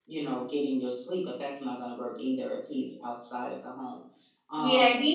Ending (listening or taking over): taking over